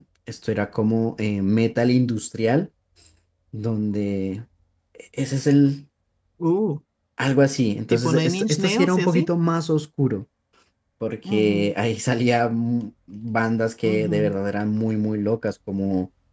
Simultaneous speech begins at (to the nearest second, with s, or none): 8 s